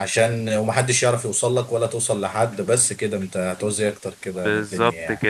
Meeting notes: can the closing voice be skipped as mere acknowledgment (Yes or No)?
No